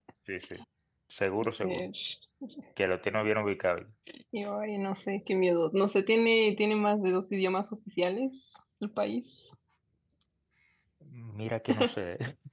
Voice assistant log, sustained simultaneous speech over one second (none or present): none